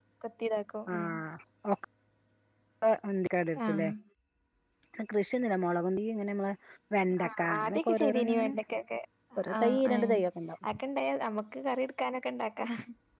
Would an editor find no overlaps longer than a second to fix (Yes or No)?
No